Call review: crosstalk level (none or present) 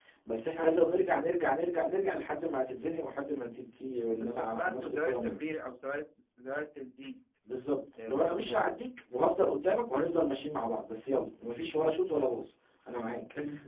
present